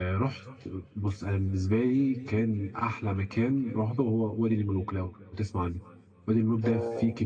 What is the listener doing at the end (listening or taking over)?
listening